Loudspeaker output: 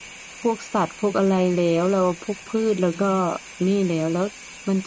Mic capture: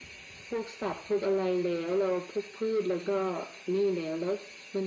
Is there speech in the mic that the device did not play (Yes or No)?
No